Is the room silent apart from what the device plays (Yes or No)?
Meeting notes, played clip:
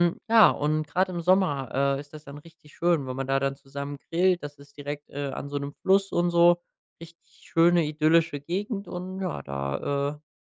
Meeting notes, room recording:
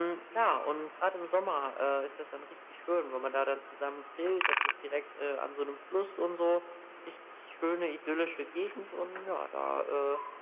Yes